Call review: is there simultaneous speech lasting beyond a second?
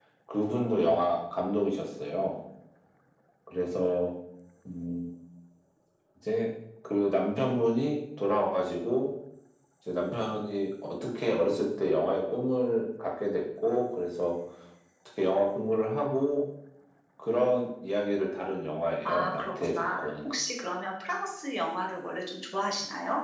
Yes, from 19.0 s

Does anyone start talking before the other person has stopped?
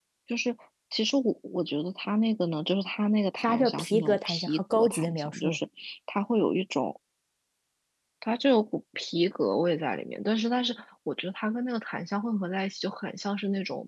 Yes, from 3.4 s

